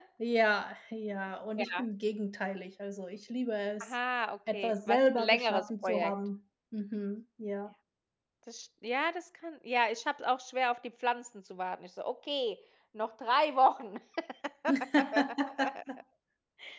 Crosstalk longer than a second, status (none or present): present